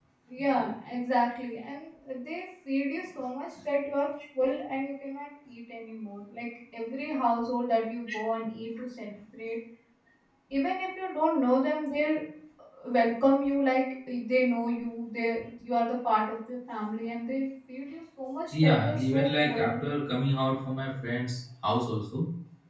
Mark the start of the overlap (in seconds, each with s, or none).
18.5 s